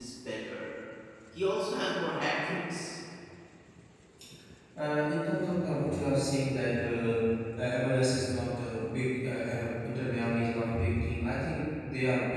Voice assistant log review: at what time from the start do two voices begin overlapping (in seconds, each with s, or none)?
none